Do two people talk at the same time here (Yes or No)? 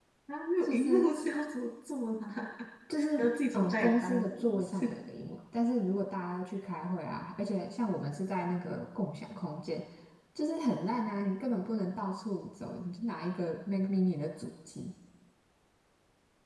Yes